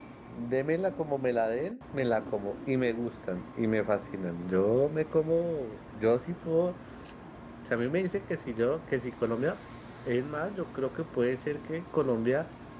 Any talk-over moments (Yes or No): No